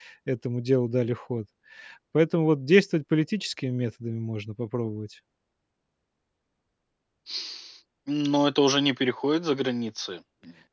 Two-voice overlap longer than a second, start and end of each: none

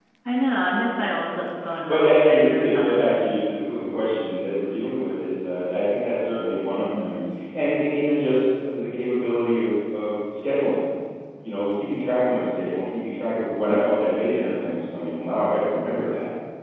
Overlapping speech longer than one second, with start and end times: 1.9-3.2

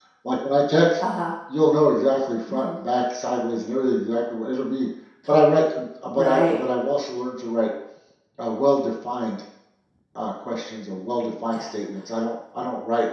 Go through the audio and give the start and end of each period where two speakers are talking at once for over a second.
none

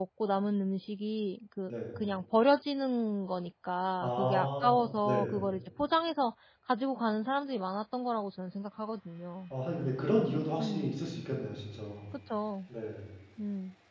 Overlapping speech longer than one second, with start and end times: 4.0-5.4

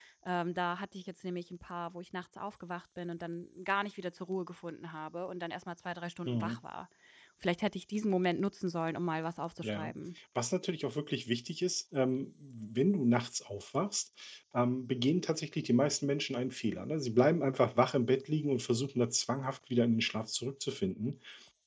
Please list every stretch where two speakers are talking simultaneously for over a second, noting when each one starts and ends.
none

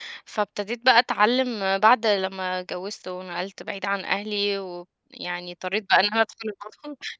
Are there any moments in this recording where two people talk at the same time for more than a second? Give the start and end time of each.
none

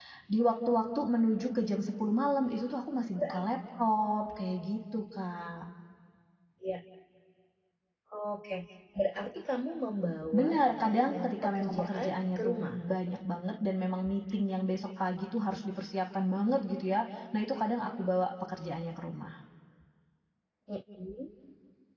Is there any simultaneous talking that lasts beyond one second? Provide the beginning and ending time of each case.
10.3-12.8

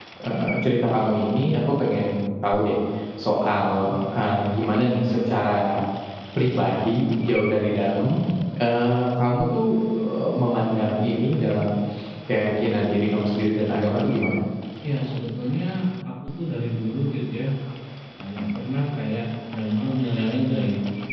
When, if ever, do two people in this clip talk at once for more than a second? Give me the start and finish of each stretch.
none

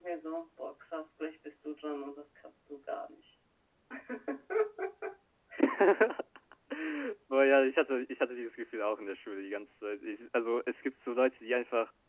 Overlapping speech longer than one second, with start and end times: none

